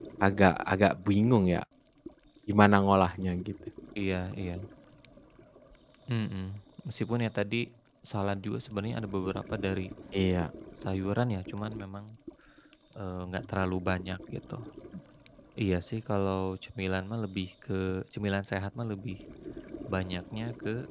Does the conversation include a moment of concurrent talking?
No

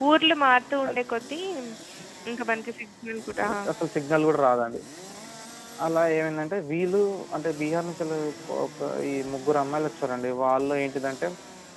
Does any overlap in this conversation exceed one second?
No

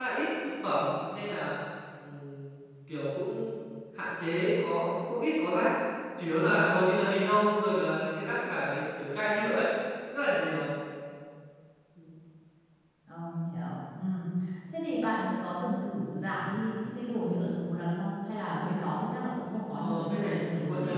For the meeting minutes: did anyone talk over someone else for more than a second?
Yes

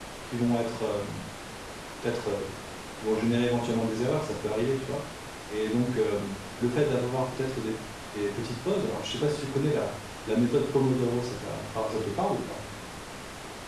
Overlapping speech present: No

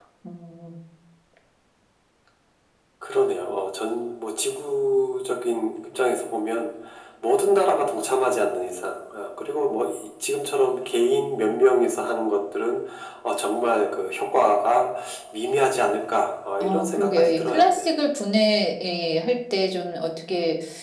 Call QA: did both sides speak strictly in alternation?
No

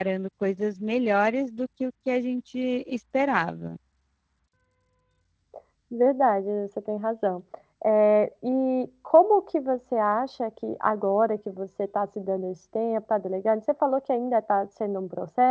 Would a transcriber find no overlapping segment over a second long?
Yes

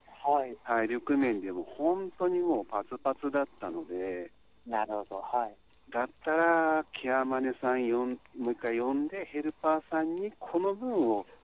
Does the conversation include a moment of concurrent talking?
No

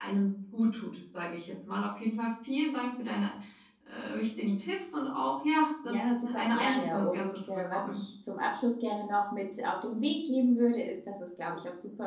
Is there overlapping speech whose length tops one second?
Yes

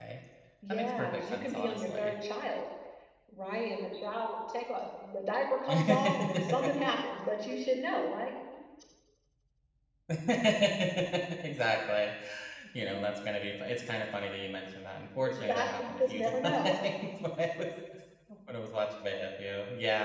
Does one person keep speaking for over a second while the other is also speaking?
Yes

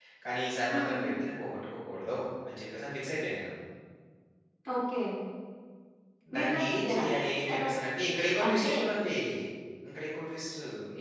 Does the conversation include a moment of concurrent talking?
Yes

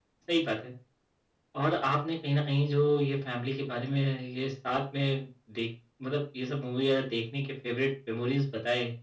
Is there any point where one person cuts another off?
No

